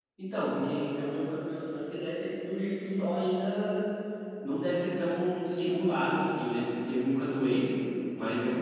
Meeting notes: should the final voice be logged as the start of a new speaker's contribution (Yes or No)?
No